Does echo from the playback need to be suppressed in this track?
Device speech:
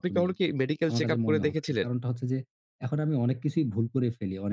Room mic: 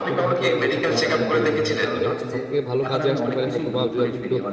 Yes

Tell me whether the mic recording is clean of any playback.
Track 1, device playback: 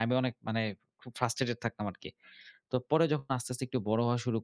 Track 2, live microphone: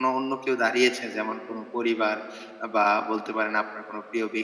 Yes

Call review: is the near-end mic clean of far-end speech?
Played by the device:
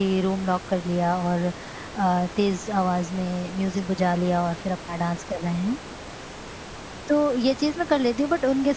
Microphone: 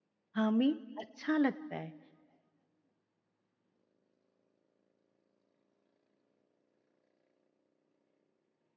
Yes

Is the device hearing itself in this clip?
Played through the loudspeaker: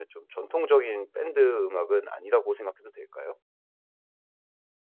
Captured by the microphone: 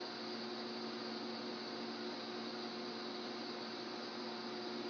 No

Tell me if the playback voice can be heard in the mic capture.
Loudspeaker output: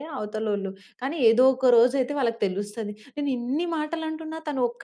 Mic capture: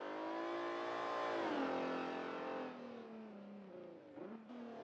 No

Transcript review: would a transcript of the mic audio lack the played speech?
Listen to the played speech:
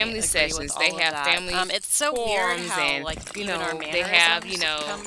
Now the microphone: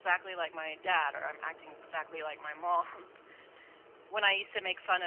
Yes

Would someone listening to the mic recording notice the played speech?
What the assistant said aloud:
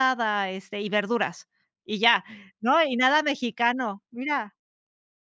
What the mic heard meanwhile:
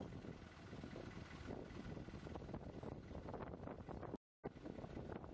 No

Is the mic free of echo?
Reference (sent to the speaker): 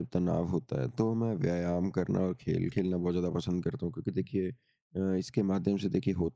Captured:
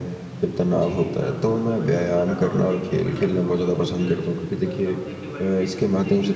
No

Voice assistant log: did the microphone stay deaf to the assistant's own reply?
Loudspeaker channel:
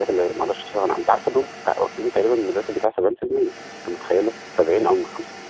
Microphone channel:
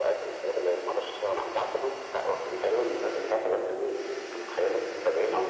No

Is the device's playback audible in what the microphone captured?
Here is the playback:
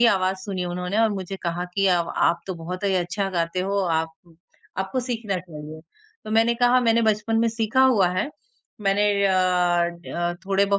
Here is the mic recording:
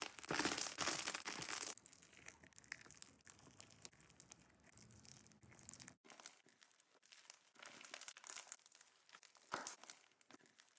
No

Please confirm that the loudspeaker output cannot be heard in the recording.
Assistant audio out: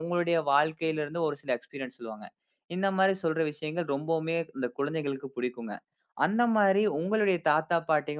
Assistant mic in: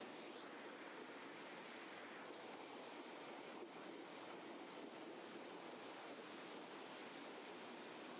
Yes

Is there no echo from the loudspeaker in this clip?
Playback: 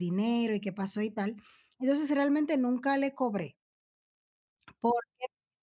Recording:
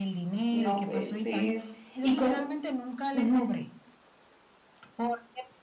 No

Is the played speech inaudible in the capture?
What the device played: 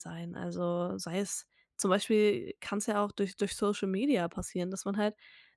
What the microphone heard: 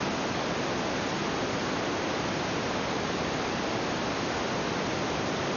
Yes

